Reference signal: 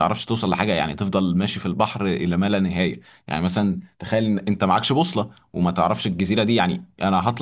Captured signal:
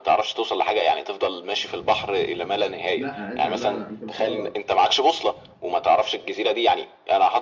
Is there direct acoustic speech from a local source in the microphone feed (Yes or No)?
Yes